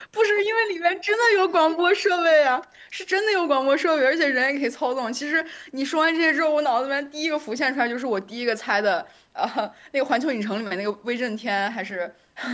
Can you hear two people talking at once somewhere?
No

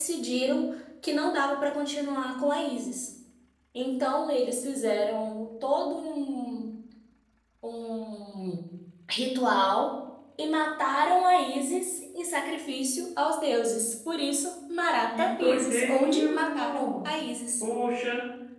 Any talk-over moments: Yes, from 15.1 s

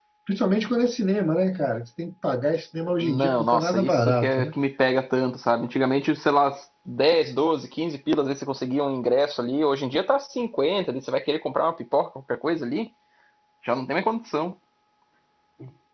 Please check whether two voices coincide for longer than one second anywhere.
Yes, from 3.0 s

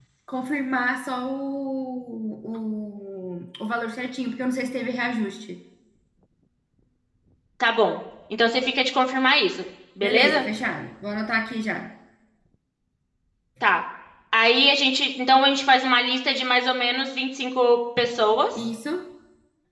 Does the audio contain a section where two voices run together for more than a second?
No

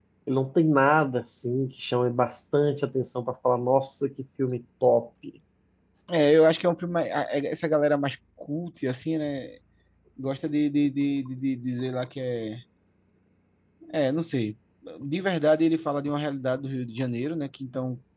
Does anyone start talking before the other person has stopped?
No

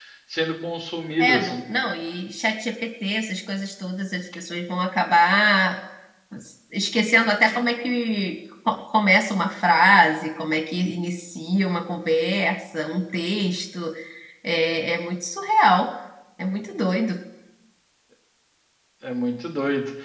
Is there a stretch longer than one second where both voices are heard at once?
No

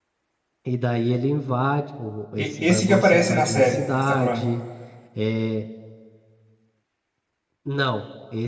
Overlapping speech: Yes, from 2.4 s

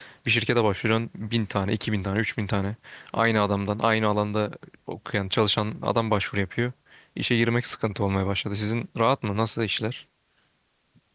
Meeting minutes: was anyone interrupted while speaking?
No

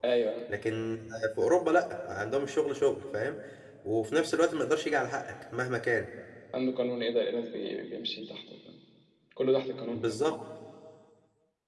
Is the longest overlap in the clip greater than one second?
No

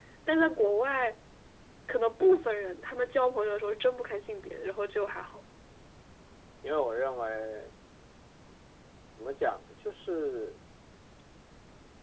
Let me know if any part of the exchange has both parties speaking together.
No

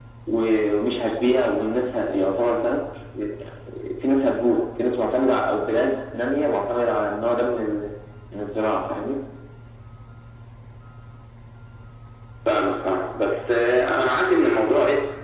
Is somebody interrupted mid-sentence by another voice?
No

